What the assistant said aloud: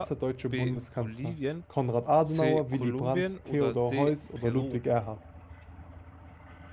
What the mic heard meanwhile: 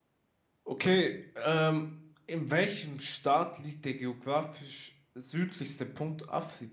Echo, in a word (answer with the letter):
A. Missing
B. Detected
A